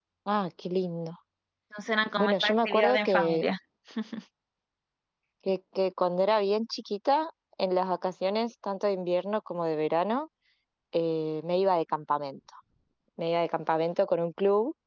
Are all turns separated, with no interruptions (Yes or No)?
No